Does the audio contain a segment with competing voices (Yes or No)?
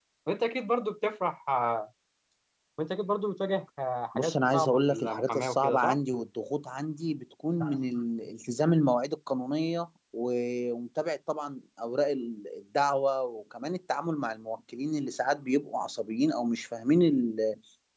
Yes